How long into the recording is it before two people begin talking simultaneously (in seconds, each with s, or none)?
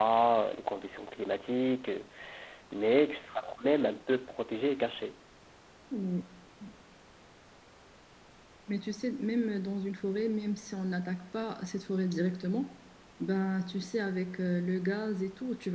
none